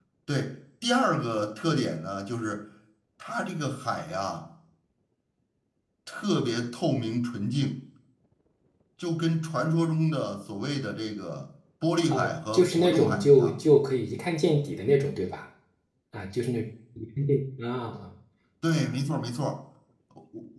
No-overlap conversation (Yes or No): No